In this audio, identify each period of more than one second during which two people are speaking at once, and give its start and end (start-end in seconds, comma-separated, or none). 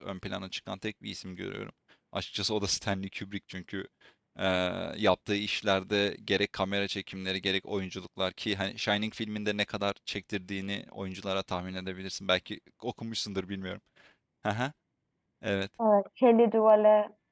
none